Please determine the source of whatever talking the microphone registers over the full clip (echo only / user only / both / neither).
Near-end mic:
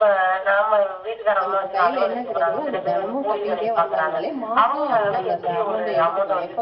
both